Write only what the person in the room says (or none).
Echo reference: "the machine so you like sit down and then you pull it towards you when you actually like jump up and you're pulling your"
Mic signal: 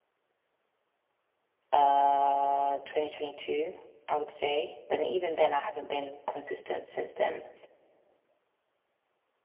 uh 2022, I would say. But then even then I haven't been consistent since then.